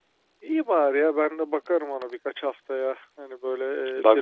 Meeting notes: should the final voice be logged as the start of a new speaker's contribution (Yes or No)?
No